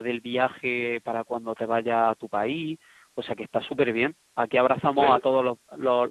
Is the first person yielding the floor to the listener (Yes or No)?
No